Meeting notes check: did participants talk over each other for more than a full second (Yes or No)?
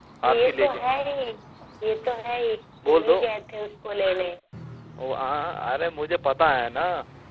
No